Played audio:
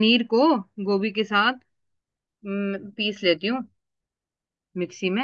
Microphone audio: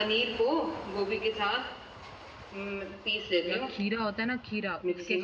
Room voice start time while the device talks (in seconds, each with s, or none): 3.5 s